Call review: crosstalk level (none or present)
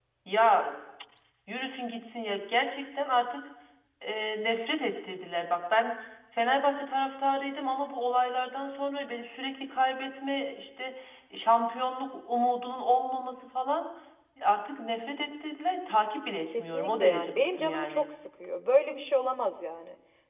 present